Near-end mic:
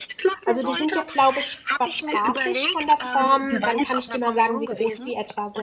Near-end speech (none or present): present